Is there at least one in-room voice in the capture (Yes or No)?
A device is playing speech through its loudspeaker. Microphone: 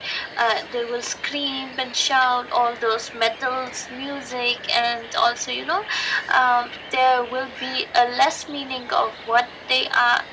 No